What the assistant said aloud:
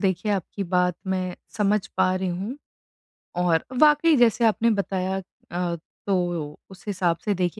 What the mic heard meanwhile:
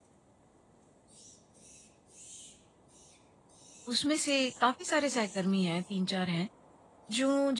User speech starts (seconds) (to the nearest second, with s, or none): 4 s